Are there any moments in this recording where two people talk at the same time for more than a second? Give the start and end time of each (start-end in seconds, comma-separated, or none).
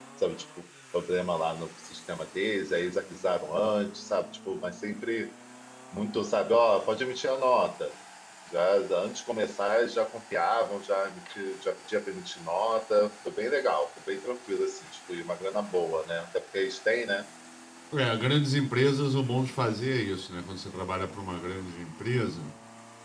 none